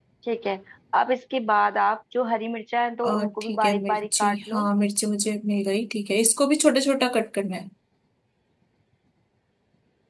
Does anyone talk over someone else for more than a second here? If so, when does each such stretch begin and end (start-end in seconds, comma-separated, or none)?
3.1-4.7